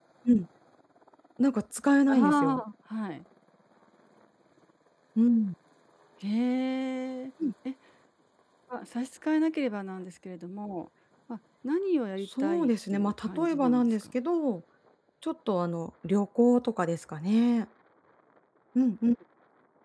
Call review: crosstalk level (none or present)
present